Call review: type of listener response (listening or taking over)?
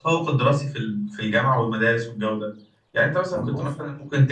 listening